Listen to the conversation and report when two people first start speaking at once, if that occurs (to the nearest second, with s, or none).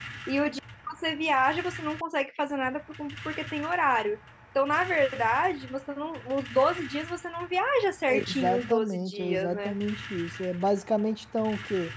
8 s